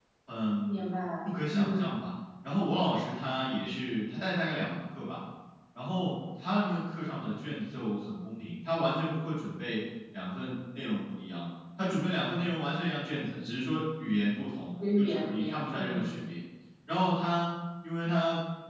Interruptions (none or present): present